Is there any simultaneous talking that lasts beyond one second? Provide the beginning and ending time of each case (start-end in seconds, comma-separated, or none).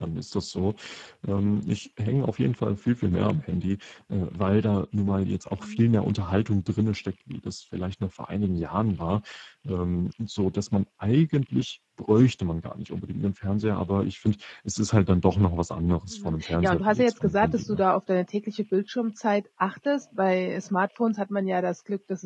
16.1-17.8